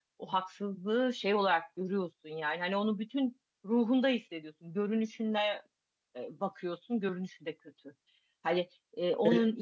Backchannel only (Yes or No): Yes